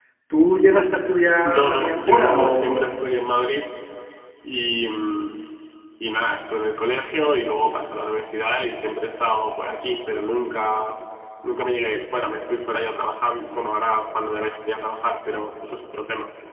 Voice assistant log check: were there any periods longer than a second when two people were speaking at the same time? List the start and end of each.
1.4-3.0

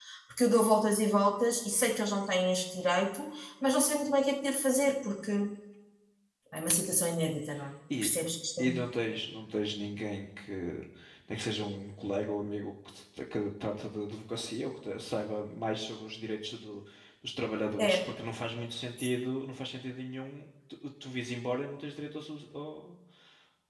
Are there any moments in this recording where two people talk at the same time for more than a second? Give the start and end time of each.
none

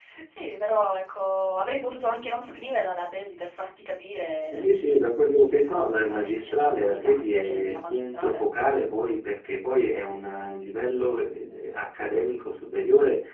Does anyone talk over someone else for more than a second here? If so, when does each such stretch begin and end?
5.5-8.4

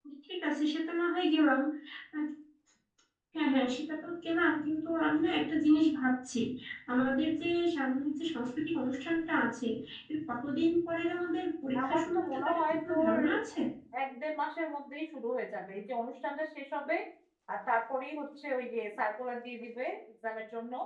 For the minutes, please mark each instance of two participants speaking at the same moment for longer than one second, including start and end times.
11.8-13.2

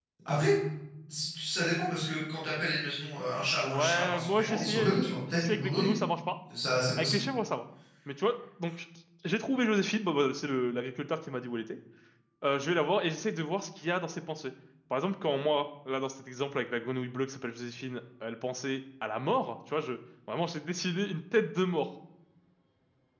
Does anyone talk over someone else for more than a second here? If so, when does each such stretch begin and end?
3.6-6.0

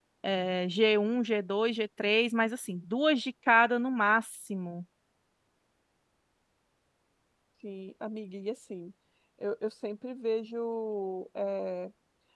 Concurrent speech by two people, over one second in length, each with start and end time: none

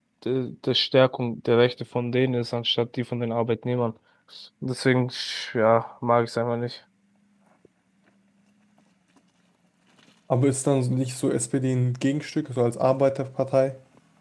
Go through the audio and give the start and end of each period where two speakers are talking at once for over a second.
none

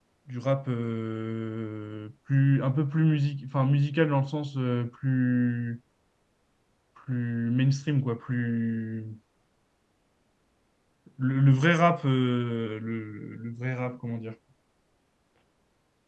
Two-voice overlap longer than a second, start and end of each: none

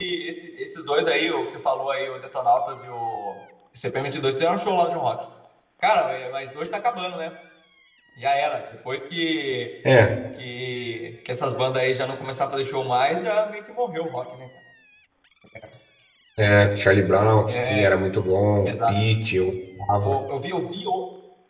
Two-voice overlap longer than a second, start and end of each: none

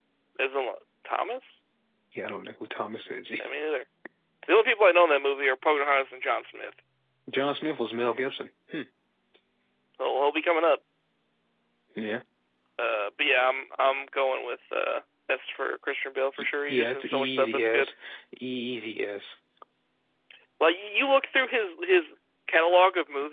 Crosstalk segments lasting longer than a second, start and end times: 16.4-17.9

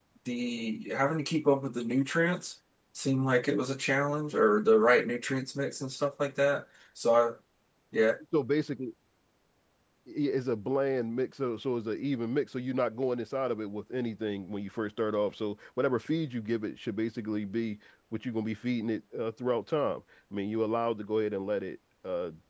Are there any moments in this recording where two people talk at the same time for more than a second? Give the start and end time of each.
none

